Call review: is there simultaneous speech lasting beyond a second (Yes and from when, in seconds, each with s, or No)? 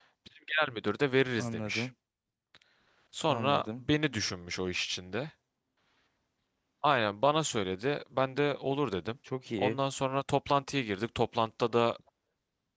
No